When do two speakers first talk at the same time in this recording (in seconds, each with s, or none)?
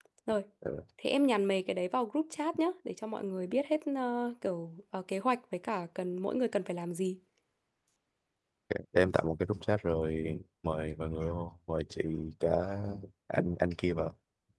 none